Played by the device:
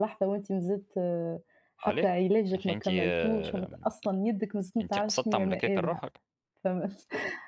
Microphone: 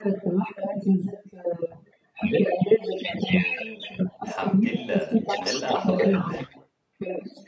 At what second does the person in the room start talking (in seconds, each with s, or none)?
4.2 s